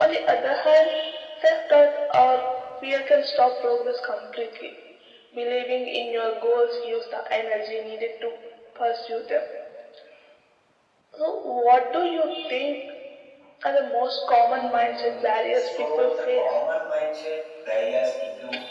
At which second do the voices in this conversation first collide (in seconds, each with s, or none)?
14.5 s